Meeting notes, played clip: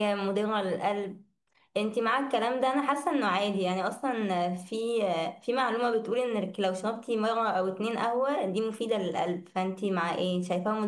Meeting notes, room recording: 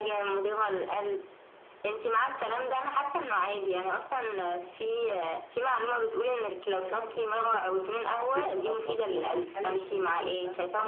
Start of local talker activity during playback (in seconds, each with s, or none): 6.7 s